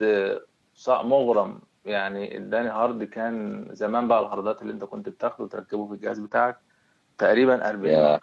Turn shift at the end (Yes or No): No